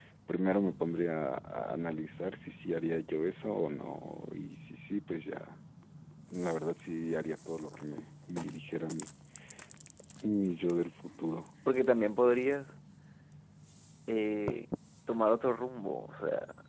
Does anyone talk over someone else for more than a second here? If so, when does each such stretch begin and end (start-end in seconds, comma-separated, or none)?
none